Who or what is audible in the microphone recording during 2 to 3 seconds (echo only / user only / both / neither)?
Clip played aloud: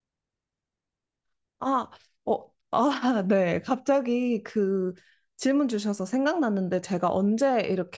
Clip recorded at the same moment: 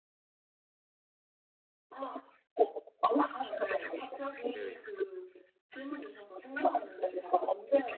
echo only